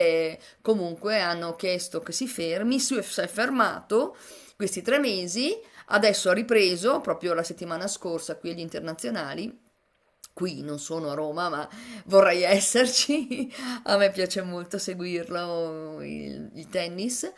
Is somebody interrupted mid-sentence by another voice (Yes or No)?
No